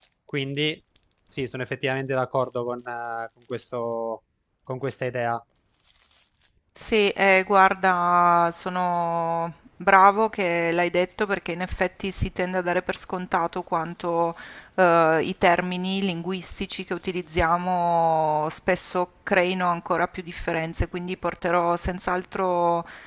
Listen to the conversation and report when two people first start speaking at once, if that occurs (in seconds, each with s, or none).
none